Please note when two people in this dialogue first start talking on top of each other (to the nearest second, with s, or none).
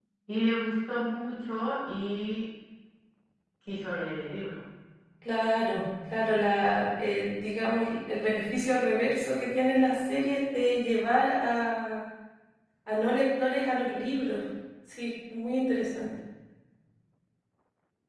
none